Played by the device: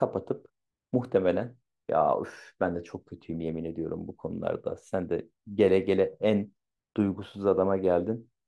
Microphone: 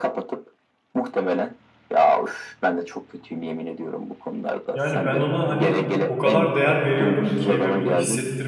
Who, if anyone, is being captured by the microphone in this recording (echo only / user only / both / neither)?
both